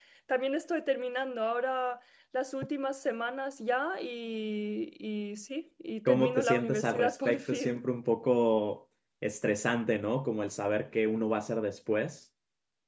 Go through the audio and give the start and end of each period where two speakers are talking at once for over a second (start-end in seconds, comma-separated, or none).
6.0-7.8